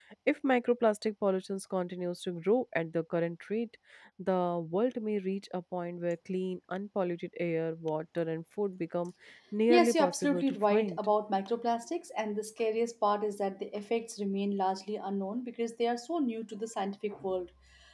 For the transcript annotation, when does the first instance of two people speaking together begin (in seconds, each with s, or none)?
9.7 s